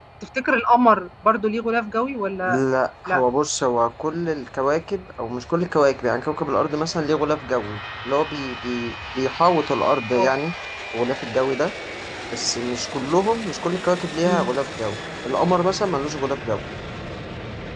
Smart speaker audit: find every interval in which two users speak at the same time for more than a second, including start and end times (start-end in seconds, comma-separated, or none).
none